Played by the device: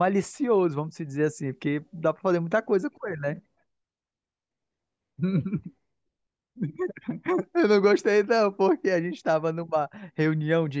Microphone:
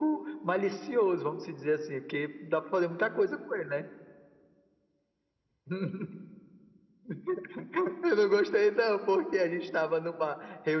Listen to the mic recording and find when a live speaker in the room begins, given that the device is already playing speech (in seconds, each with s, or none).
none